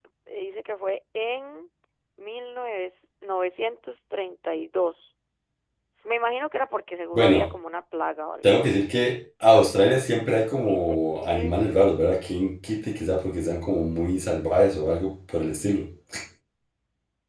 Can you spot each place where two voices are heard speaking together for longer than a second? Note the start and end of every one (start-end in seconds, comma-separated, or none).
10.7-11.9